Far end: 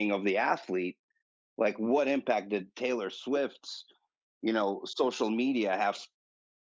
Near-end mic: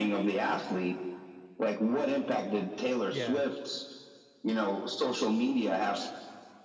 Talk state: both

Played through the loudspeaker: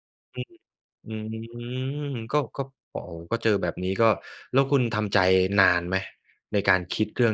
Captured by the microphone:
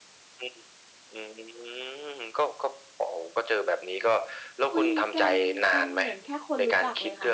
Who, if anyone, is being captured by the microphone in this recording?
both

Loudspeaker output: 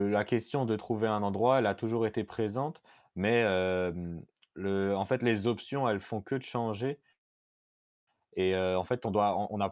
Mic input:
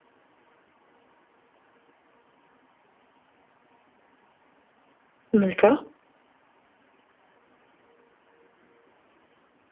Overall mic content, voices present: user only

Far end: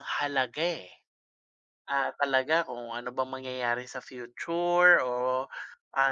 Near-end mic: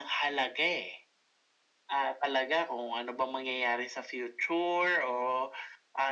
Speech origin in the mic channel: echo only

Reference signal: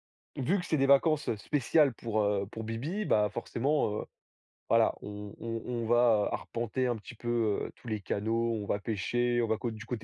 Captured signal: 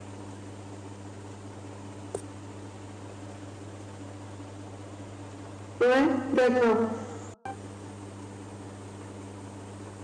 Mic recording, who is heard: user only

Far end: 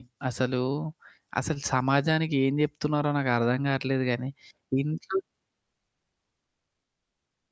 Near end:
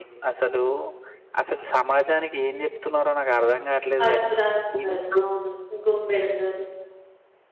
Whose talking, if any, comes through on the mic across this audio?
both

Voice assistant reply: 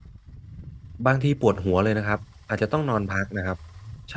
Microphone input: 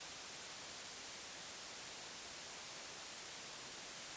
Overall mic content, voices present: neither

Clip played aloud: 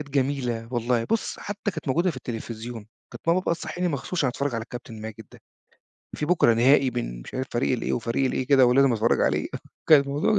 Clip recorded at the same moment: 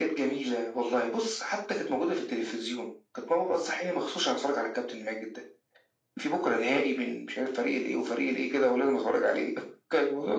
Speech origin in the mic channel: echo only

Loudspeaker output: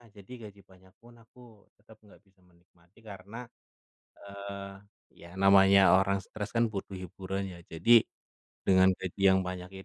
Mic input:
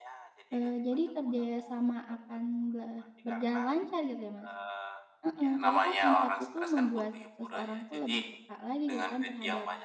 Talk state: both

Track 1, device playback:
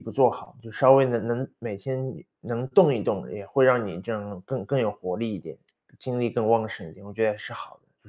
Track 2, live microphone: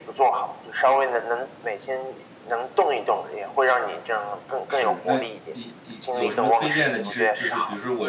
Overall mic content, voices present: both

